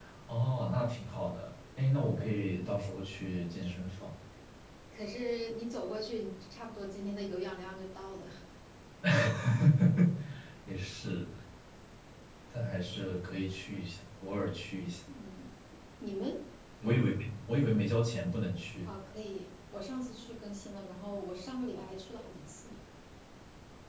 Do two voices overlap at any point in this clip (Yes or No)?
No